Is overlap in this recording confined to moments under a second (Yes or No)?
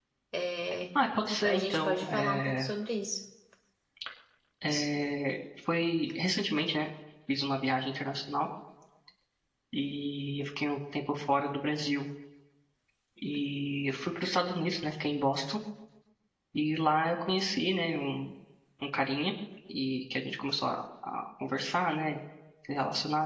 No